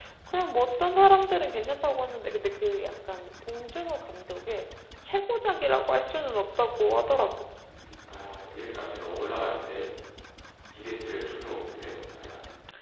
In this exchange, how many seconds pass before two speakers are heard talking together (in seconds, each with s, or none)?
none